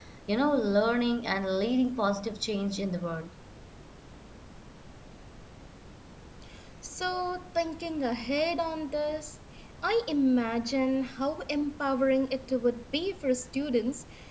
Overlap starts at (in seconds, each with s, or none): none